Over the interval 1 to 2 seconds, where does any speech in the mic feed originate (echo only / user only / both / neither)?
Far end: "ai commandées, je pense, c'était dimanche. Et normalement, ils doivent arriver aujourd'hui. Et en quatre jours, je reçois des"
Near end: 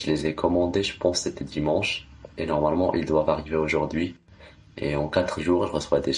echo only